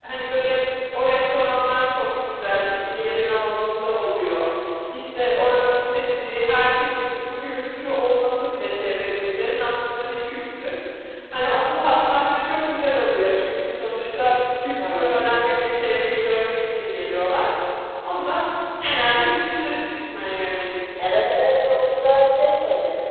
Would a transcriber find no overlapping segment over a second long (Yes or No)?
Yes